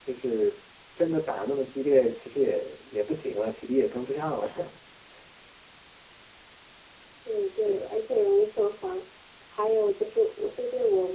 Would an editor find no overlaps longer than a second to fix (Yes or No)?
Yes